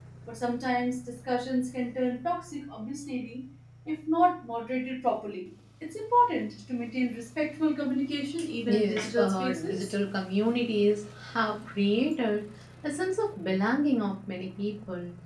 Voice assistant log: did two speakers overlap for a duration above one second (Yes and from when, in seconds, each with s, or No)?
Yes, from 8.6 s